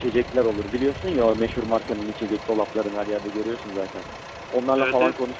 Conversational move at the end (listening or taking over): listening